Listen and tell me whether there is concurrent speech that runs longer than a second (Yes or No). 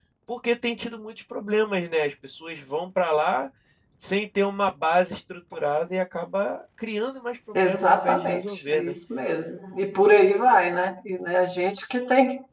Yes